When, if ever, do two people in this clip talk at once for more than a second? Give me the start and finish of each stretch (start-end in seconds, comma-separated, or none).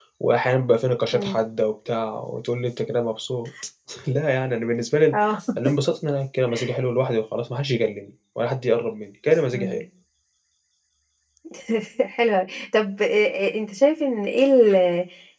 none